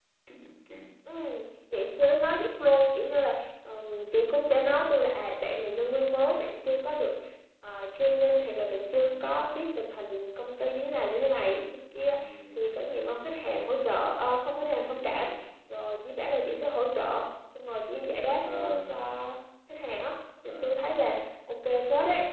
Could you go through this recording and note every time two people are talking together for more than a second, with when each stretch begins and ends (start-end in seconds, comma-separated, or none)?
none